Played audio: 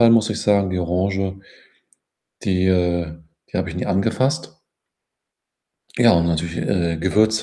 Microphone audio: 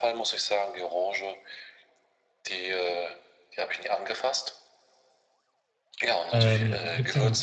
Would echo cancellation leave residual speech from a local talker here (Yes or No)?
Yes